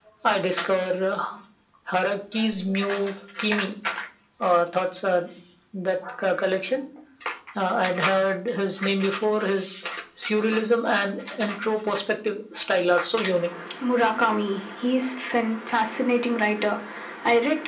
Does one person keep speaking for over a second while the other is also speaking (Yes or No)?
No